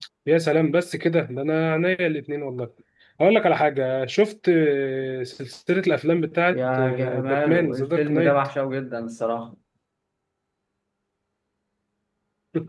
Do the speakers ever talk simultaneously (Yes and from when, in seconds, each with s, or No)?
Yes, from 6.5 s